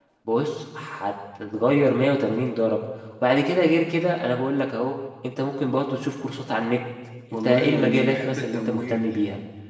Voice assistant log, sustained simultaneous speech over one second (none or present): present